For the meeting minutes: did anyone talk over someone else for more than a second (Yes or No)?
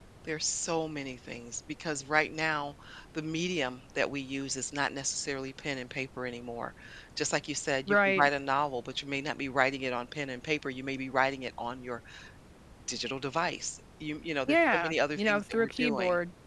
Yes